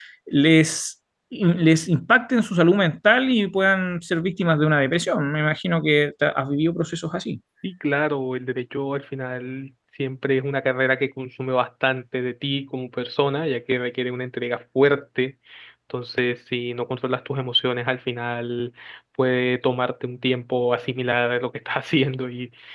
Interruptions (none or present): none